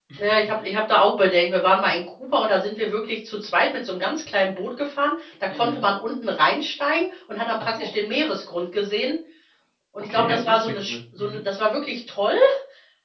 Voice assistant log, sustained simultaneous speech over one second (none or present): present